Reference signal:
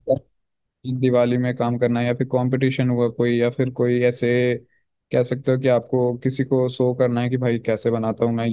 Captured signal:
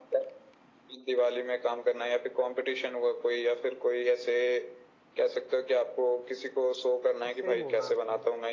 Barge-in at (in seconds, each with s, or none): 7.3 s